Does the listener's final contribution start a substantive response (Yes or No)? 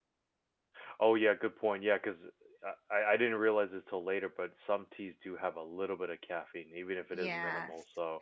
Yes